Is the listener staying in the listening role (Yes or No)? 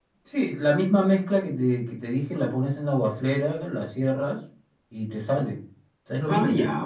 No